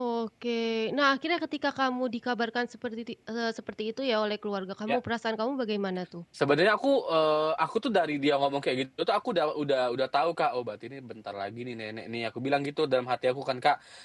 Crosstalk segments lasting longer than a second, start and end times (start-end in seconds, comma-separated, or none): none